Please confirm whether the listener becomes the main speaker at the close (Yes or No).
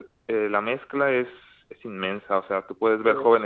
No